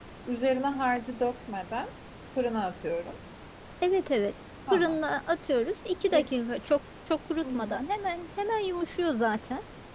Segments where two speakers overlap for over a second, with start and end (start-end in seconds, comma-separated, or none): none